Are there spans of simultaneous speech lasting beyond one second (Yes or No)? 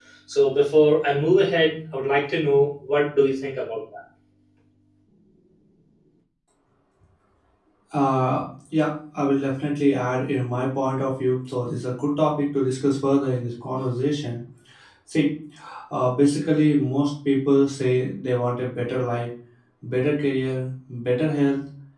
No